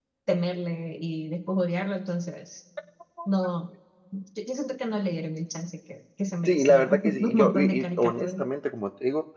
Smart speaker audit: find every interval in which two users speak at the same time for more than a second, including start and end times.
6.5-8.4

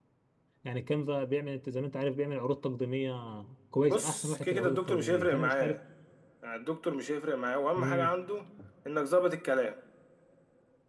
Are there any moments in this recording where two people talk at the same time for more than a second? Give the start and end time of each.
3.9-5.8

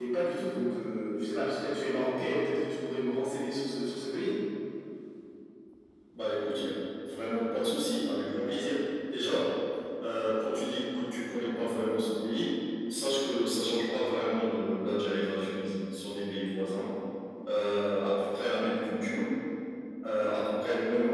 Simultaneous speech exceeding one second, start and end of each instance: none

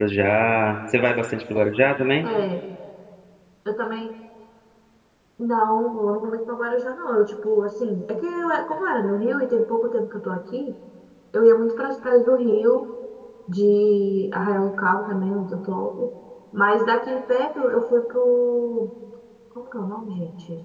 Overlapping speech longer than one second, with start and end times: none

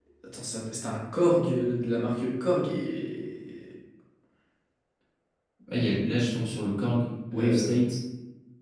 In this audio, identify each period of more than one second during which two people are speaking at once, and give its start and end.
none

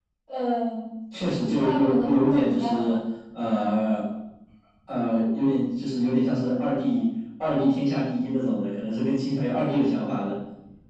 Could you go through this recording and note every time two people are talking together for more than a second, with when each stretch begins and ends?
1.6-3.0

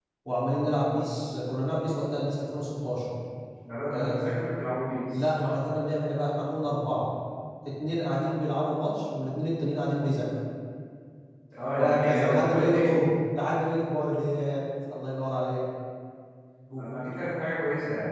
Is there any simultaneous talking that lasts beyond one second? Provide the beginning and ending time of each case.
11.8-13.0

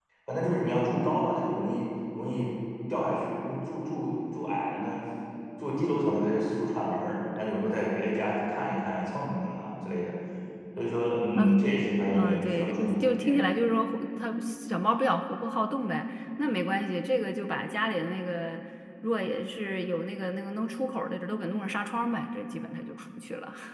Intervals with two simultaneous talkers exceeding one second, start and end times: 12.1-13.4

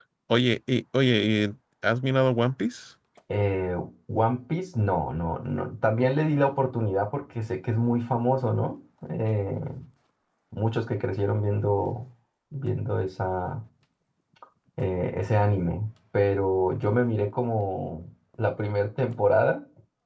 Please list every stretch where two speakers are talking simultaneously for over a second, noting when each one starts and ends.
none

